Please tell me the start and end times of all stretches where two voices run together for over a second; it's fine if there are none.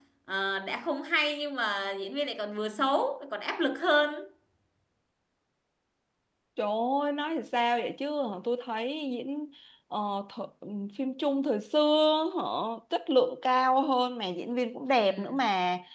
none

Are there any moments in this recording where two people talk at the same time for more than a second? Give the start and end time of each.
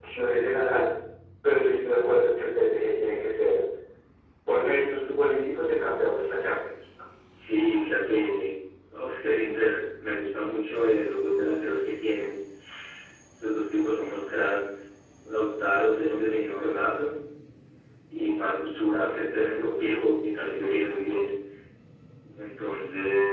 none

